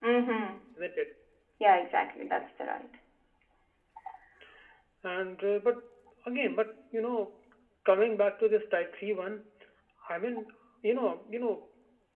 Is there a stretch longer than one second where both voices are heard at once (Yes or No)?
No